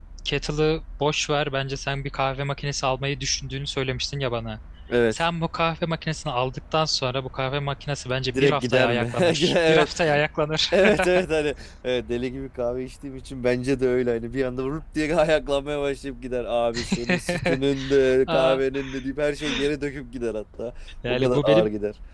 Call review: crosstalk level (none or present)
present